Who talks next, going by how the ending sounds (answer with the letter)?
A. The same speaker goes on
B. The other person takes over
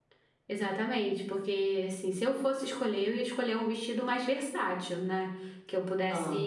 A